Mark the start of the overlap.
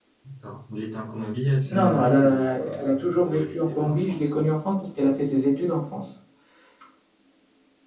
1.6 s

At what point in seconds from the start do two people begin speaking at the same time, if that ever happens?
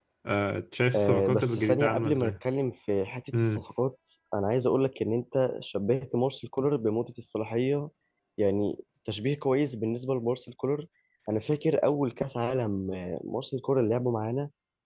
0.9 s

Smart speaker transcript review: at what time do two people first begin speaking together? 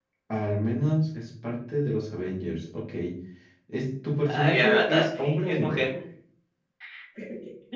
4.2 s

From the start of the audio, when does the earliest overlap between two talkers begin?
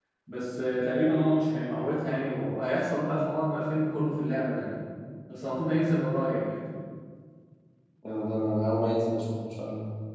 none

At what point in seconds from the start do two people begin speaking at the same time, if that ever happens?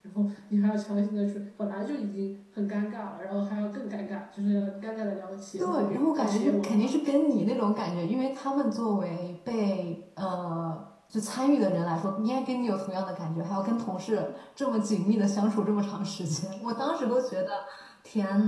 5.6 s

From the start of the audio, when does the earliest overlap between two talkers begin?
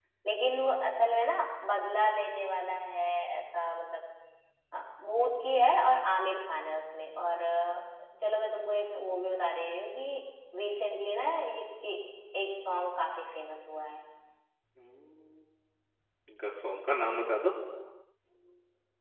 none

